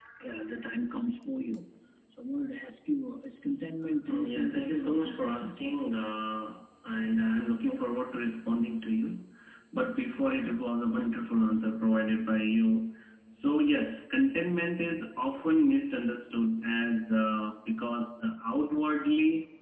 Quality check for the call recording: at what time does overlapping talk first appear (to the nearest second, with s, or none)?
4 s